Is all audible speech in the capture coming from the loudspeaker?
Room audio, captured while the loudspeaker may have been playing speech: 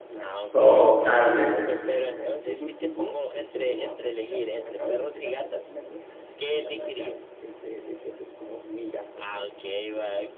No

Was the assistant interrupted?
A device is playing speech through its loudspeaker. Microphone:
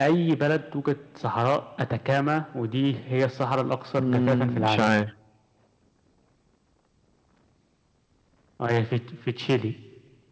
Yes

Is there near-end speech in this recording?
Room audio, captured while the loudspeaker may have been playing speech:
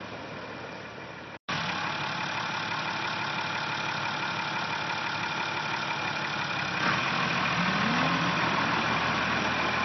No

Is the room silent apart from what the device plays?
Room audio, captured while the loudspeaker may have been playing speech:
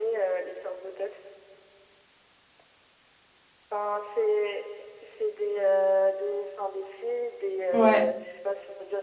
No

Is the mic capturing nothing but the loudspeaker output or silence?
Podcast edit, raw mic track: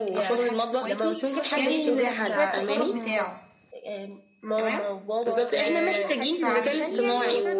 No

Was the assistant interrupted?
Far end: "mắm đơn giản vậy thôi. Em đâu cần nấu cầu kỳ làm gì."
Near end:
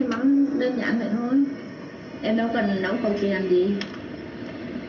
No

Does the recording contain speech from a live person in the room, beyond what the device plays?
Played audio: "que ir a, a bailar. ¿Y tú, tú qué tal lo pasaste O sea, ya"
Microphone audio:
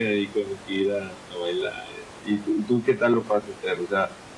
No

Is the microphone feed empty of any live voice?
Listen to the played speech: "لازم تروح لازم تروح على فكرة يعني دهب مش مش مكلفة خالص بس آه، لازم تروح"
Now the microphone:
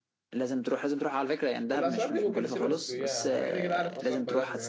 No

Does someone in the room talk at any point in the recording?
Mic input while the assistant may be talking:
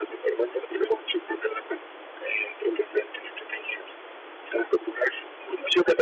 No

